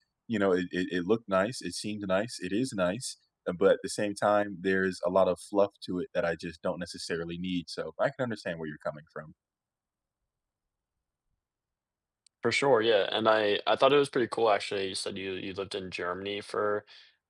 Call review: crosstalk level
none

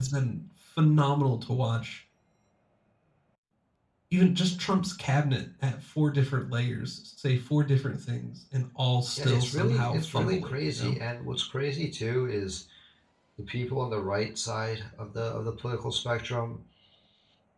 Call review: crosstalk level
present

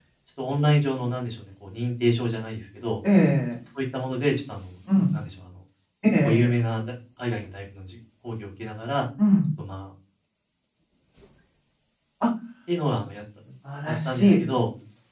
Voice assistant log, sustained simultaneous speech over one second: none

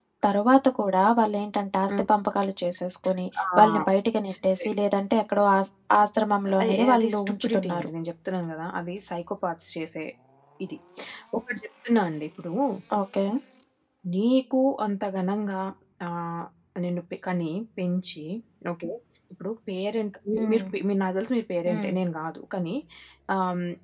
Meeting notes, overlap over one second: present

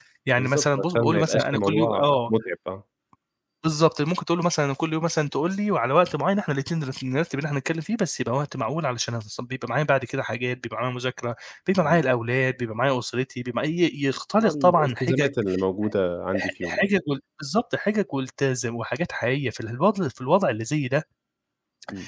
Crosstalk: present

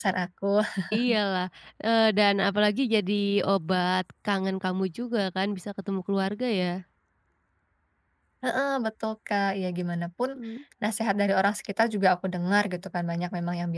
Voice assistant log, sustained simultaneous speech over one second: none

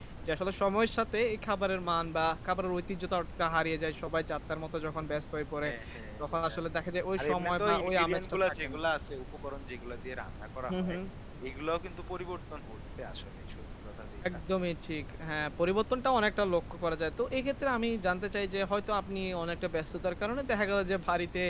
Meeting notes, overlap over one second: present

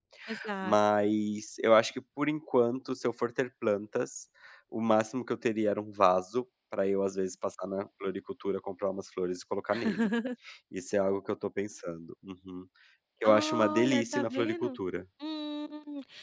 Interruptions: present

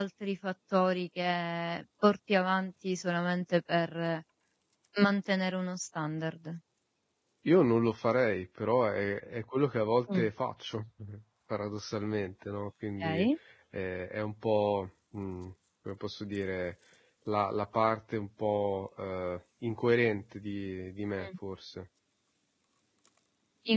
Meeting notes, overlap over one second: none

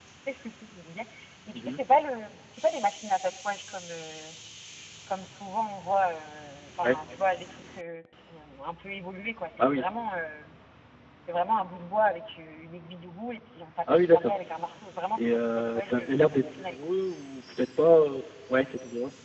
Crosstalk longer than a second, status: present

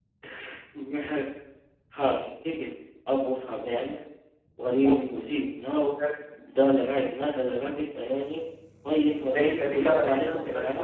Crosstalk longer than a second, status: present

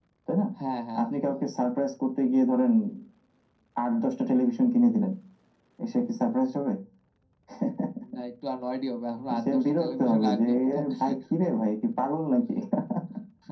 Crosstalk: present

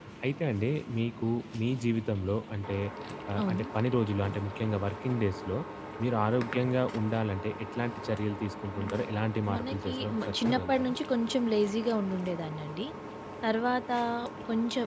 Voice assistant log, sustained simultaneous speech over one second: present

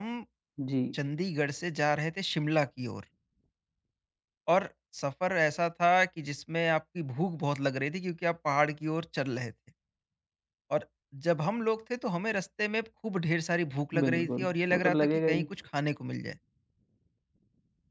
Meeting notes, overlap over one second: present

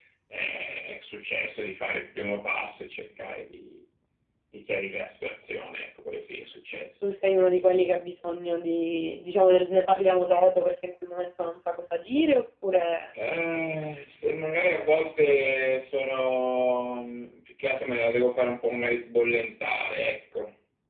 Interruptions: none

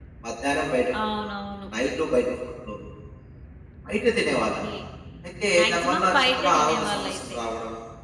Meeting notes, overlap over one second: present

